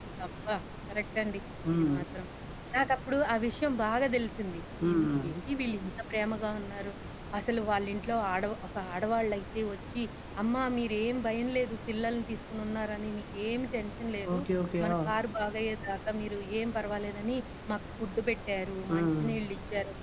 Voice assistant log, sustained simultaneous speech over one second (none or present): none